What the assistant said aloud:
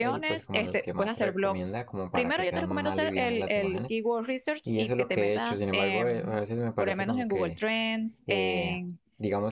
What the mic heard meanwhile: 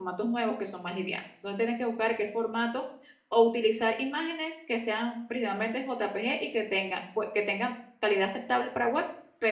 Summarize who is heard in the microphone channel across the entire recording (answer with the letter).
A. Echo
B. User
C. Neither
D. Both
B